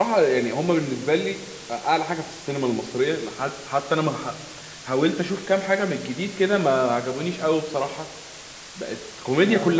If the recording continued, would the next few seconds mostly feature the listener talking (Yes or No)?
No